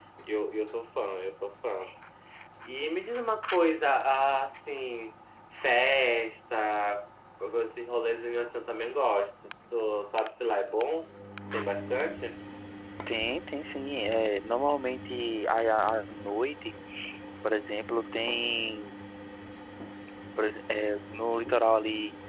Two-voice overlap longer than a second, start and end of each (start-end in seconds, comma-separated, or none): none